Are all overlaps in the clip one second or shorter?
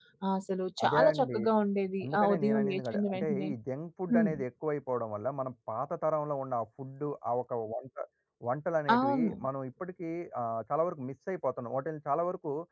No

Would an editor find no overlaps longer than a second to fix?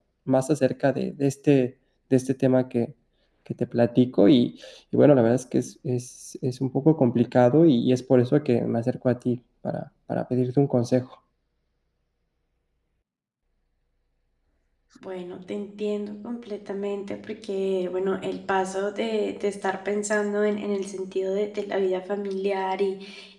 Yes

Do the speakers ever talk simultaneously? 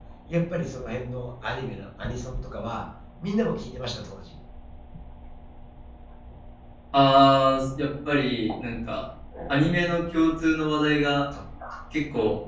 No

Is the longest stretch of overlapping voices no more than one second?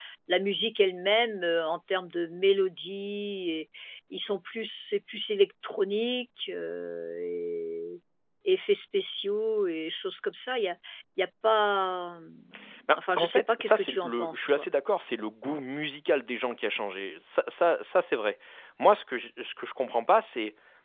No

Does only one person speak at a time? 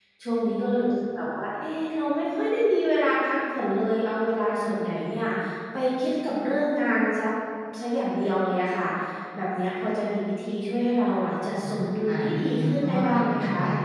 No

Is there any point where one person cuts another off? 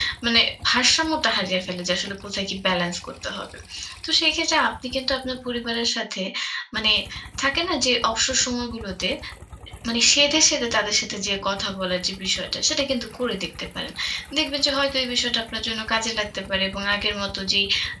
No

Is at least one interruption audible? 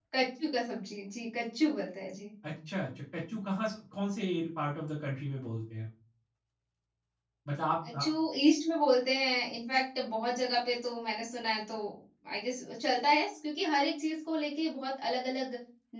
No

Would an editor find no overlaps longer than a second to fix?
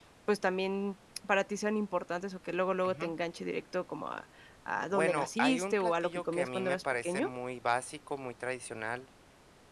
No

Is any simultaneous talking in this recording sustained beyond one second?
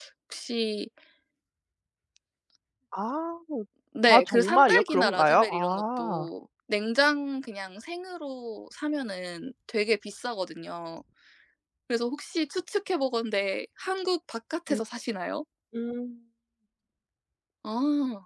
Yes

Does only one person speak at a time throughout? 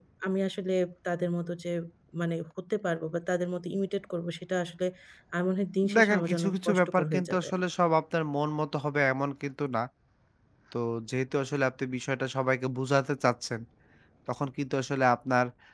No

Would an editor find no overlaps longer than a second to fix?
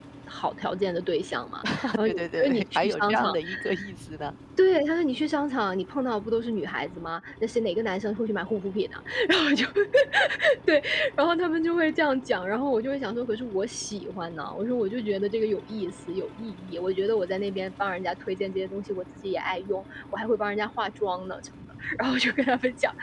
No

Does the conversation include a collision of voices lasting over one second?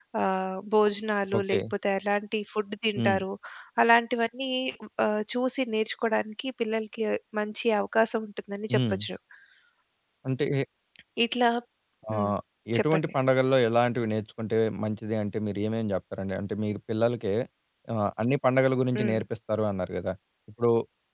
No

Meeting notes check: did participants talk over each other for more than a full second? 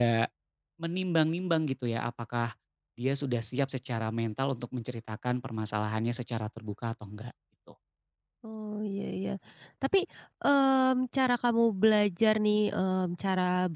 No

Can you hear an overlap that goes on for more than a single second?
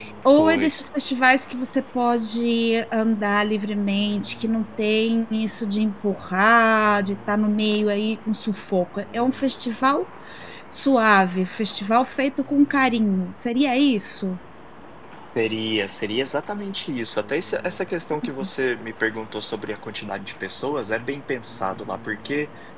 No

